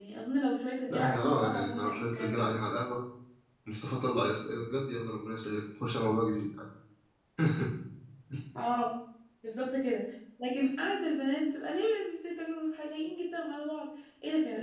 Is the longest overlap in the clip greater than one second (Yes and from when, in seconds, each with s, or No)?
Yes, from 0.9 s